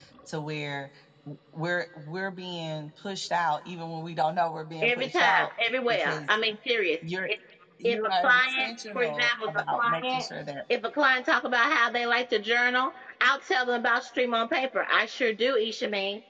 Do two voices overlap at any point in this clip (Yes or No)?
Yes